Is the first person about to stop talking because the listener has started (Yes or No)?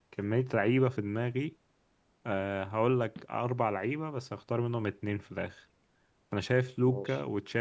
No